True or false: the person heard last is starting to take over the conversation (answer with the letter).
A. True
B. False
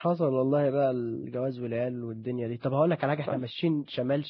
B